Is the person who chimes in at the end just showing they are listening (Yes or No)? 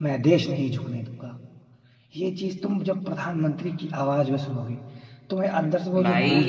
No